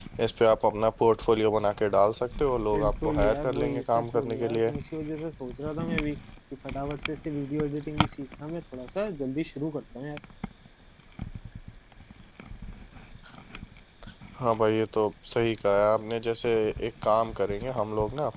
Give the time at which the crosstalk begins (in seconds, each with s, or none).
2.7 s